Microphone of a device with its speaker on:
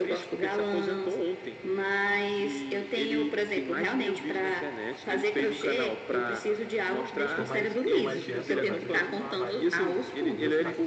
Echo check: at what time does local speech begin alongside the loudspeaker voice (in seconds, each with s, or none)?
7.2 s